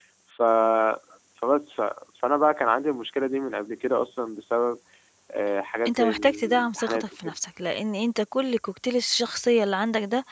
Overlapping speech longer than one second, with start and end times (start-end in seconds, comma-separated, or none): 5.9-7.4